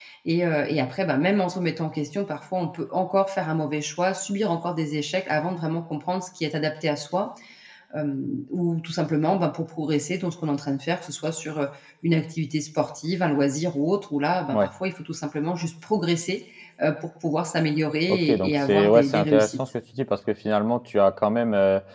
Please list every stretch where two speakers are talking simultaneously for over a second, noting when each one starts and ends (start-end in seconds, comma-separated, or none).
18.1-19.7